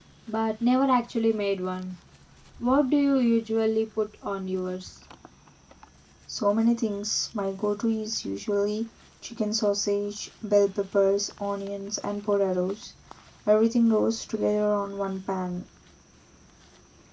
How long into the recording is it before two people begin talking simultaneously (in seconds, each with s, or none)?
none